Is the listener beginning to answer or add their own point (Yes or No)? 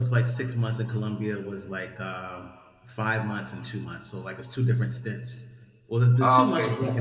No